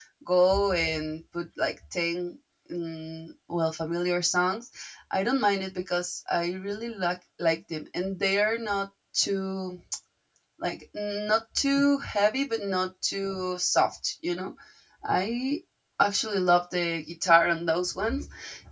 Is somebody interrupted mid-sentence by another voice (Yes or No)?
No